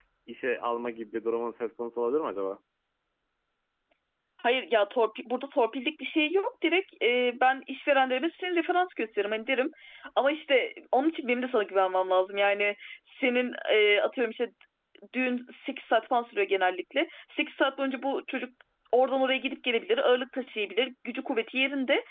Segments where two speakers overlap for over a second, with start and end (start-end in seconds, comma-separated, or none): none